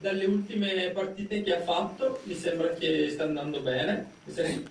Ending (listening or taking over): listening